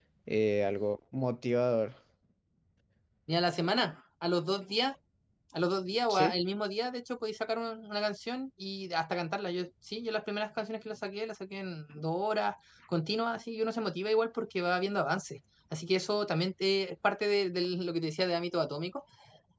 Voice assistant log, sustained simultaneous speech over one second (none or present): none